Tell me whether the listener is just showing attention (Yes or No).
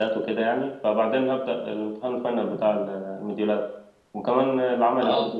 Yes